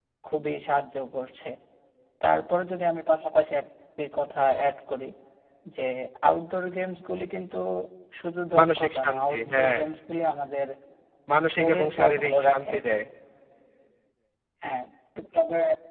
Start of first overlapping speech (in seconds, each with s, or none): 8.6 s